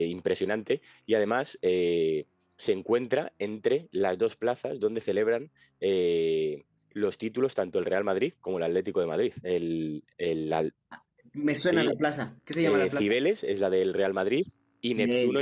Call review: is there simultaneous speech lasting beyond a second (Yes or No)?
No